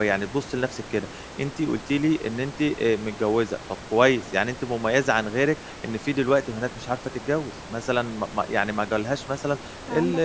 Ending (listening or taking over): listening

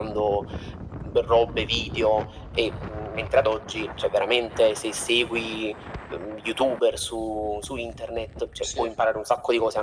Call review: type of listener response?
listening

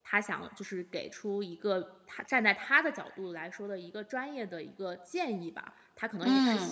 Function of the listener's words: listening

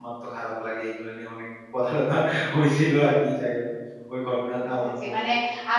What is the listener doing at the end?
taking over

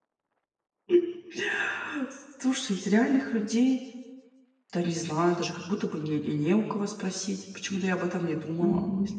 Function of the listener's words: taking over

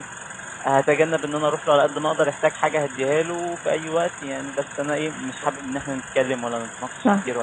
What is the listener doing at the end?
listening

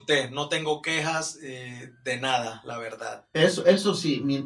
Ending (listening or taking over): taking over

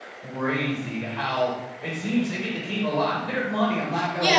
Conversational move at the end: taking over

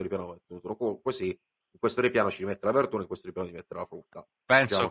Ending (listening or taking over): taking over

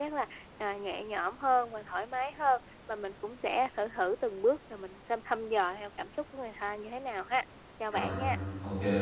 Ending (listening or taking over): taking over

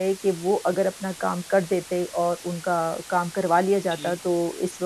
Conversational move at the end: listening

